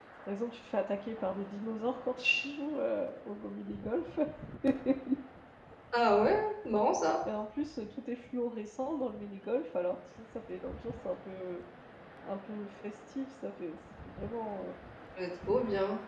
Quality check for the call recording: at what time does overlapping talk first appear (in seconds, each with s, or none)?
none